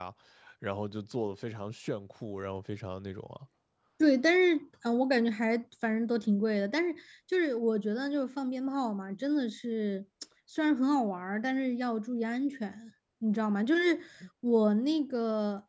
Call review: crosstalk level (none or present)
none